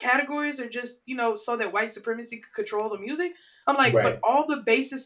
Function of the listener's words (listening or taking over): listening